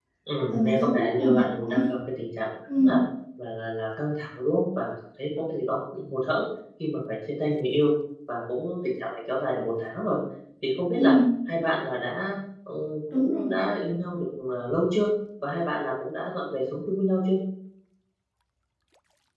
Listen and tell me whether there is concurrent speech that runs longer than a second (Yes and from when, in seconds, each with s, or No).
Yes, from 0.5 s